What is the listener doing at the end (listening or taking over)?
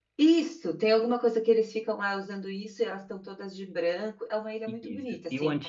taking over